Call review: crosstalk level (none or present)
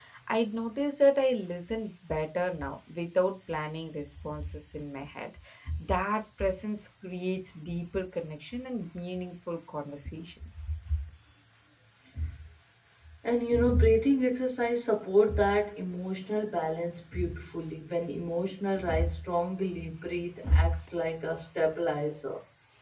none